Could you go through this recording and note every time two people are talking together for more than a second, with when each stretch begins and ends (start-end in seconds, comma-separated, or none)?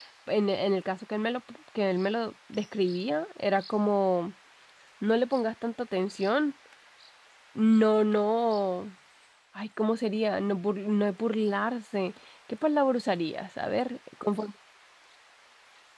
none